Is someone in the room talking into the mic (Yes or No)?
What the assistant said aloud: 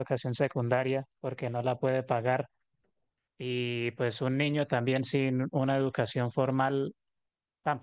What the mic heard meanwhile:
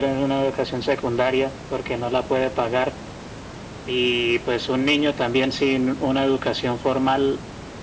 No